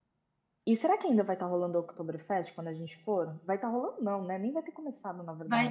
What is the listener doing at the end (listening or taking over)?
taking over